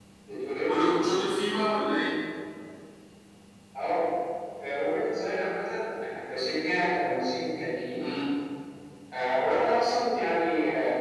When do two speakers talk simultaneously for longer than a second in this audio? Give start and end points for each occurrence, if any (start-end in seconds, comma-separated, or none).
none